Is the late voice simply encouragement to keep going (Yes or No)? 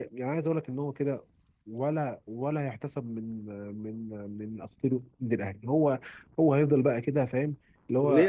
No